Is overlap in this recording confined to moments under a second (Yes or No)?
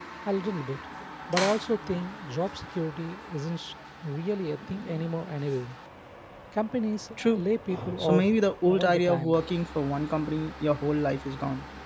No